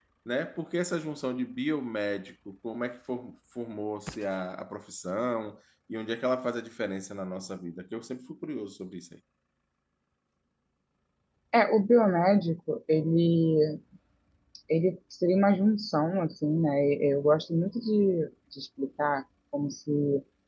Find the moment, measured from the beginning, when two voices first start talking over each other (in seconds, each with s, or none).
none